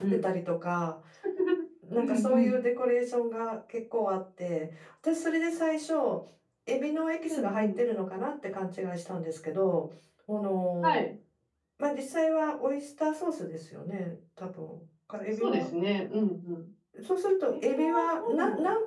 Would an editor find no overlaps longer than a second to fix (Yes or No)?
No